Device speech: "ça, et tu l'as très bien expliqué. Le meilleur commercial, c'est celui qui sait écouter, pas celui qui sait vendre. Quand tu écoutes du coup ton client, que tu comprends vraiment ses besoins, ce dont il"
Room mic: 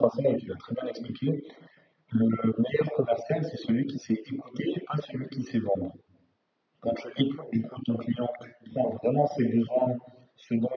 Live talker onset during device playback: none

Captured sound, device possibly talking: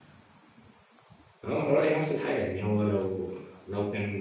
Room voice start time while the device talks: 1.4 s

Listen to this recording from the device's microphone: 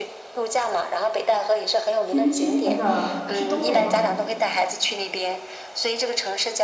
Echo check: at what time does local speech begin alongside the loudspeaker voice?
2.0 s

